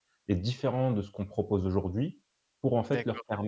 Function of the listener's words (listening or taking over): listening